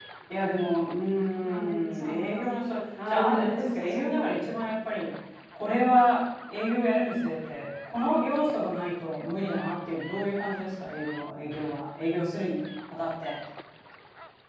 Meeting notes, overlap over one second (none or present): present